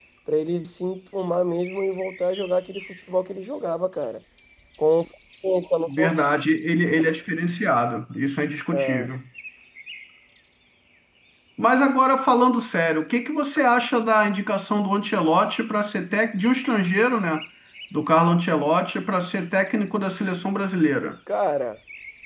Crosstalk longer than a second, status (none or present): none